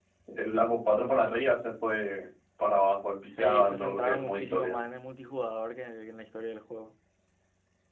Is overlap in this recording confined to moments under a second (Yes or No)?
No